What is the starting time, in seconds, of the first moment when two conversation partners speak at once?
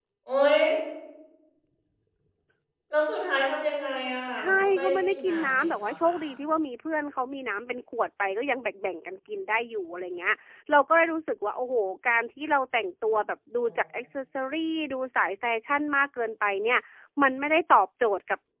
4.4 s

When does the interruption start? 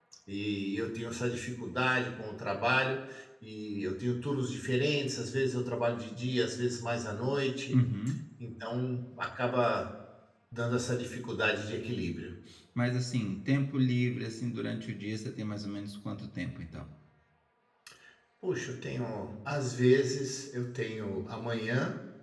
none

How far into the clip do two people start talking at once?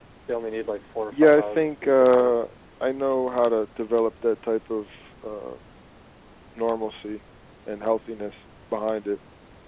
1.1 s

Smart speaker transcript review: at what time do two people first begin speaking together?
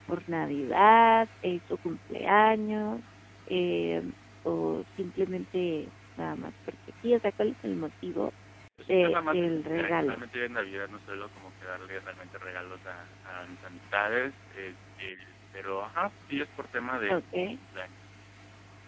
8.9 s

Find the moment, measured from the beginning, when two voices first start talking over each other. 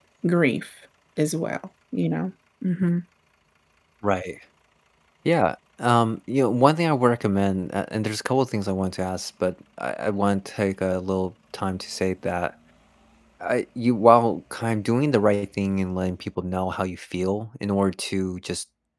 none

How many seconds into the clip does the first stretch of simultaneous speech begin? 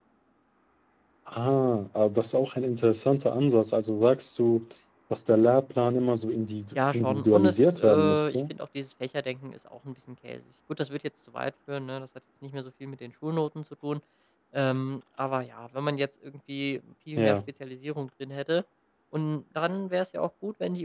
6.8 s

